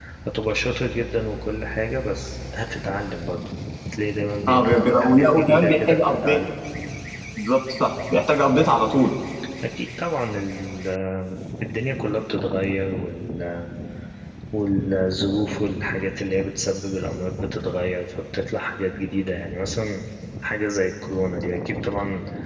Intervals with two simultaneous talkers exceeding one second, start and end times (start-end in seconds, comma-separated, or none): 4.5-6.4